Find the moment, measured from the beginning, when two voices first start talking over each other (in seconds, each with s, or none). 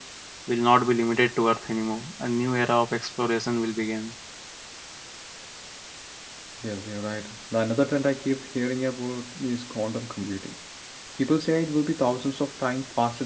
none